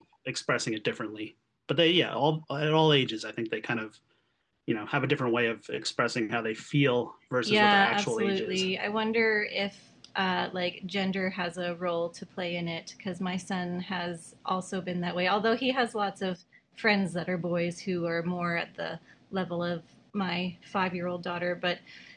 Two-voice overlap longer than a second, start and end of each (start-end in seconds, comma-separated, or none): 7.4-8.6